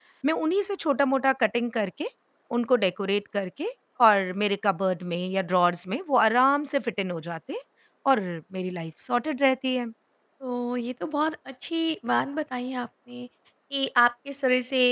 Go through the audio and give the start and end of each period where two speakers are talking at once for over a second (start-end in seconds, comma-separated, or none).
none